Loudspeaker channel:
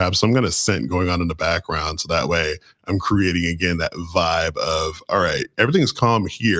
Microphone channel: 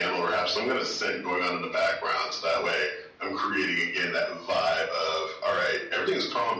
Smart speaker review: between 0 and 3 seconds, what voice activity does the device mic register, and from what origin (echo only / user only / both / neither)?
echo only